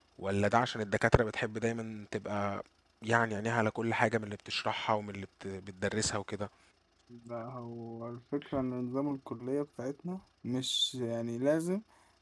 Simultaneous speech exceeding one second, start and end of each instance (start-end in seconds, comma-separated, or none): none